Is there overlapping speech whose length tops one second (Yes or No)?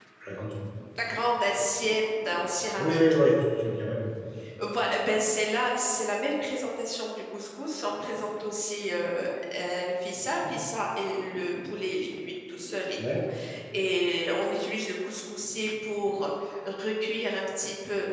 No